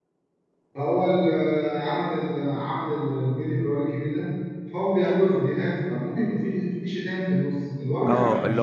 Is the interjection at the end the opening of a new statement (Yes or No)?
Yes